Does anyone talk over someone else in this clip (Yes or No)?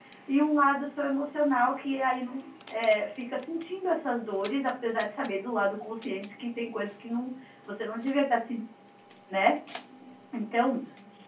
No